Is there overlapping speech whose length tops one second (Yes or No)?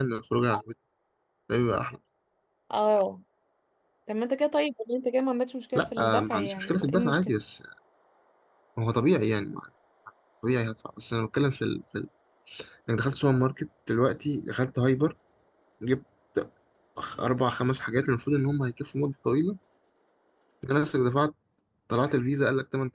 Yes